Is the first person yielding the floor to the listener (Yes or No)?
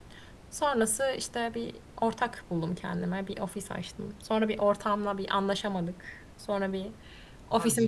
No